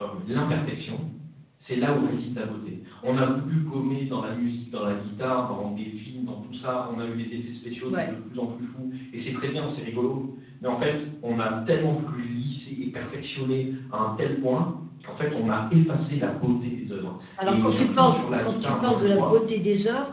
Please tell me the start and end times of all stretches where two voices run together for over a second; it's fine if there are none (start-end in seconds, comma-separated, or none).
17.4-19.3